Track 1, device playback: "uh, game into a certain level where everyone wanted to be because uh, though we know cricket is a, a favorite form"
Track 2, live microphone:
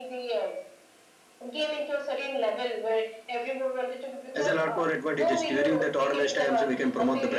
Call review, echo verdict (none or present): present